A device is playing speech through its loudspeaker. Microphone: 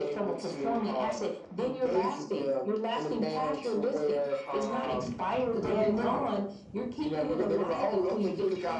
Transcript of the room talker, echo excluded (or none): none